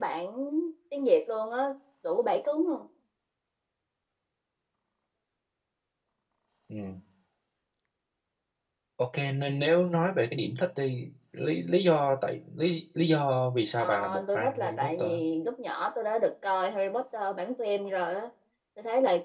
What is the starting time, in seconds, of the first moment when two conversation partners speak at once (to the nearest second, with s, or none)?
14 s